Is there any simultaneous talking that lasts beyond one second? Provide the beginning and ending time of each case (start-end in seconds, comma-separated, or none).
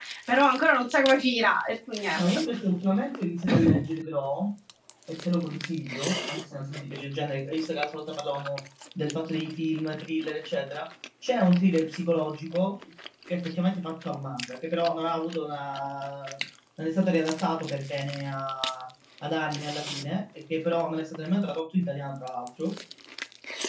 none